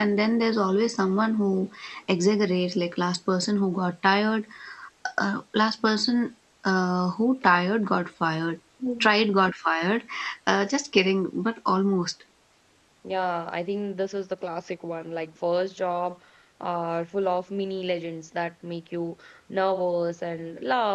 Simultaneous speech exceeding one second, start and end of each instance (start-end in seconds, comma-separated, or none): none